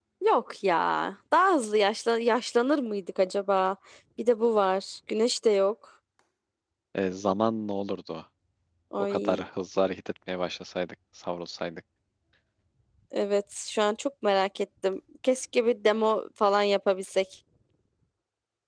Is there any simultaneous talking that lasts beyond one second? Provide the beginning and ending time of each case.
none

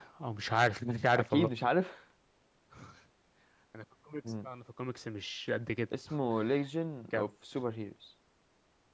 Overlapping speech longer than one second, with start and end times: none

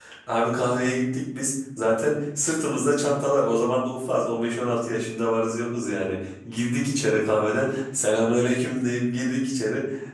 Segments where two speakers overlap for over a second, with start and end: none

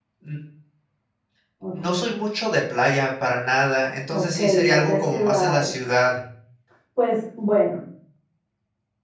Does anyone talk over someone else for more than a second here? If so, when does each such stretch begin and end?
4.1-5.8

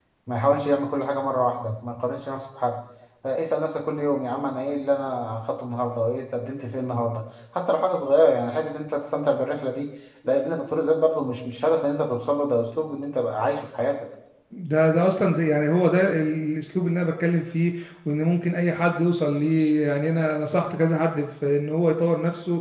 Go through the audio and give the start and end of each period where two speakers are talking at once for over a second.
none

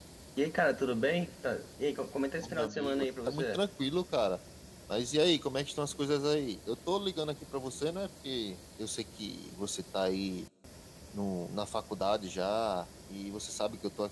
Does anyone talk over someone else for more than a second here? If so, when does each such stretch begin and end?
2.4-3.6

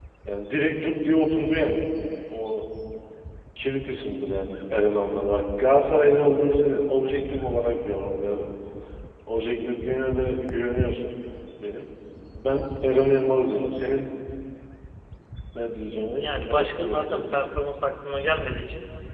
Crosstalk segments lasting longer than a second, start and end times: 16.2-17.5

